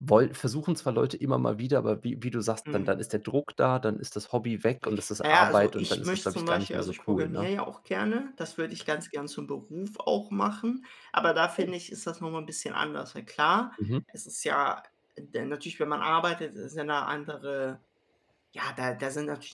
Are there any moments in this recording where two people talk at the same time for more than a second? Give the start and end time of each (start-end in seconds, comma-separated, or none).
5.2-7.5